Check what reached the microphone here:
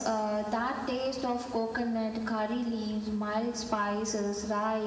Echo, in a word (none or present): present